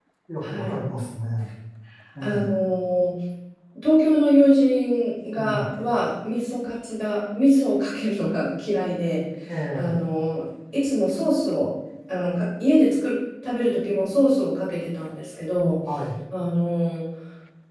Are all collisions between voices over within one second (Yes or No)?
Yes